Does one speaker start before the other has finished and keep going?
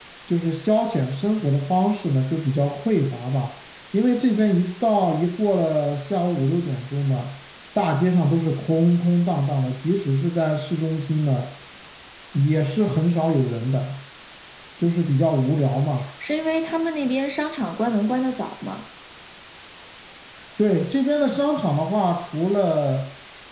No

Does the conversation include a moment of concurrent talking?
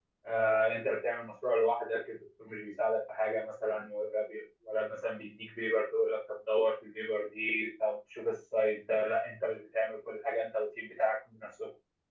No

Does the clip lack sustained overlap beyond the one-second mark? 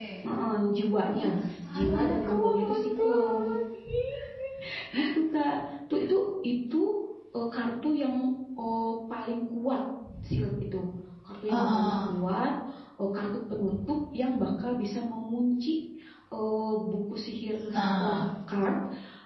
No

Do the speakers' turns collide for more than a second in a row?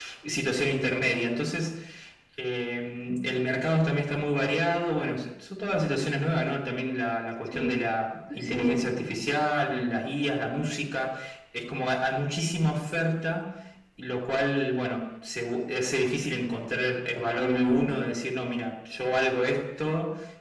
No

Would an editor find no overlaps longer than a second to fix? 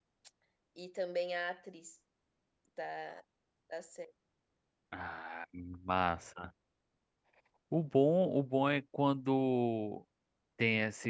Yes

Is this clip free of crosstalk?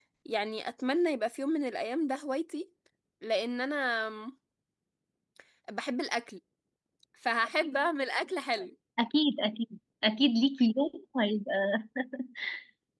Yes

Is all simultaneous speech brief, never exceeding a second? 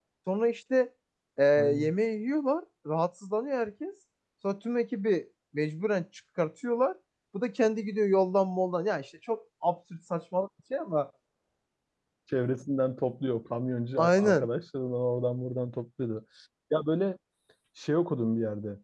Yes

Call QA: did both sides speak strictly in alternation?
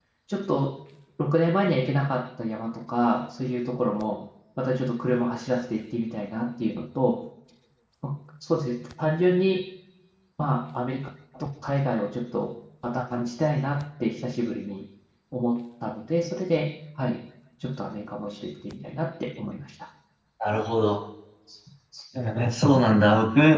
Yes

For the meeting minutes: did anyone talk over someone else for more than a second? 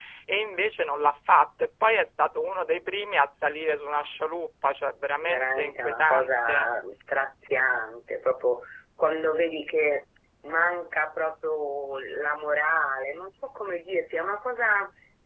Yes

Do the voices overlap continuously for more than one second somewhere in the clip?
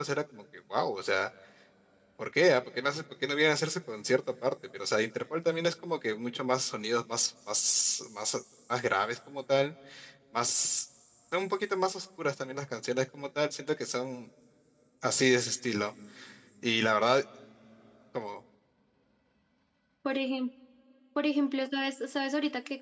No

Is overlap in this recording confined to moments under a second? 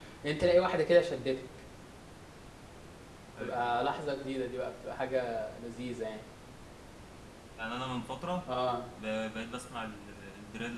Yes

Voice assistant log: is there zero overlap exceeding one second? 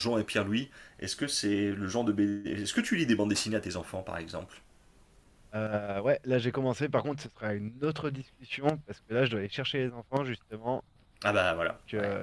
Yes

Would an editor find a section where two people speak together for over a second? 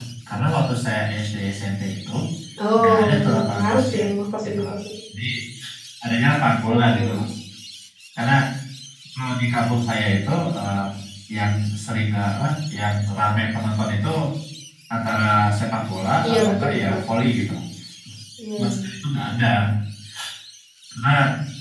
Yes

